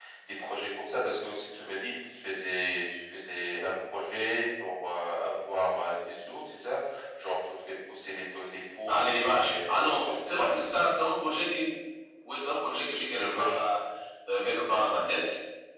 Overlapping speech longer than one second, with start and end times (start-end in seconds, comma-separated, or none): 8.9-10.5